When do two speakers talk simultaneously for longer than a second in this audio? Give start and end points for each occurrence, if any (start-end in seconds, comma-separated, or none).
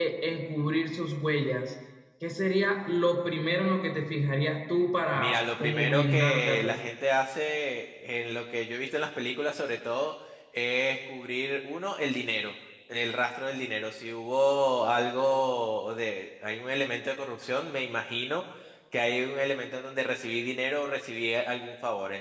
5.1-6.8